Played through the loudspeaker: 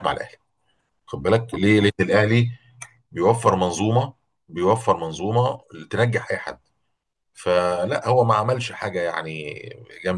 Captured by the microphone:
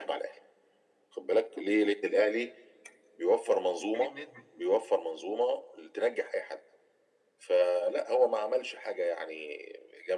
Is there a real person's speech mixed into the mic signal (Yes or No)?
Yes